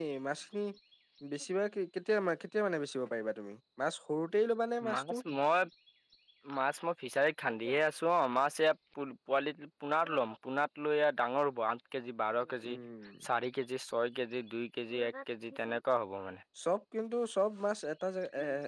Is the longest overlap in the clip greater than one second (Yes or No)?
No